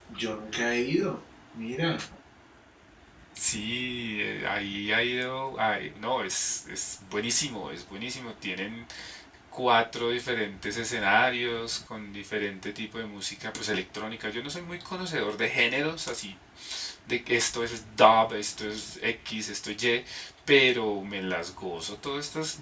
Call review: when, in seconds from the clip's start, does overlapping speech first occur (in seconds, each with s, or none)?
none